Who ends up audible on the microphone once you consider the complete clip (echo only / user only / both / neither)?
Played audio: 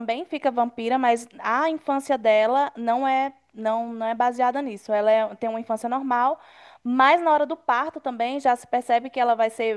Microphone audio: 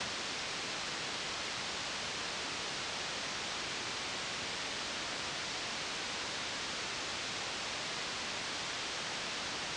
neither